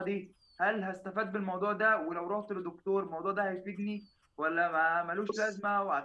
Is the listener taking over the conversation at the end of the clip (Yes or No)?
No